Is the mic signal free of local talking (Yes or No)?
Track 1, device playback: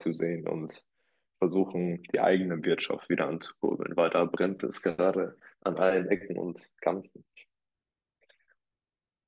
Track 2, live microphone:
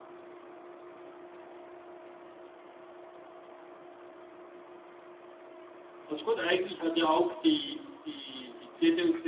No